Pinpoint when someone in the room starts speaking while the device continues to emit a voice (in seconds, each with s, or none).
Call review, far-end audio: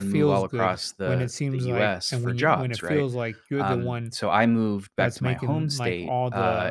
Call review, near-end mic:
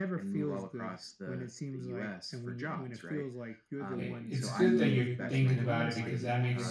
3.9 s